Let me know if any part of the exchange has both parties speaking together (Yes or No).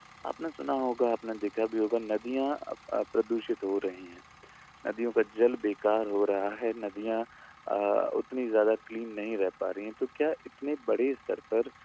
No